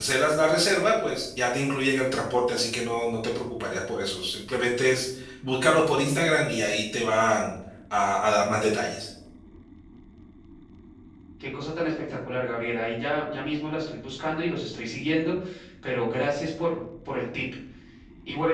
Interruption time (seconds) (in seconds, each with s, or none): none